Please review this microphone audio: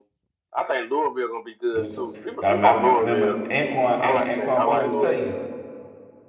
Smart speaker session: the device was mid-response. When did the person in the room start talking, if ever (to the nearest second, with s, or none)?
2 s